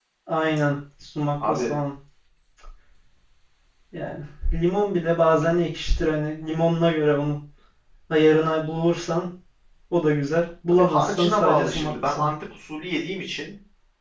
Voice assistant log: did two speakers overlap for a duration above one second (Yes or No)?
Yes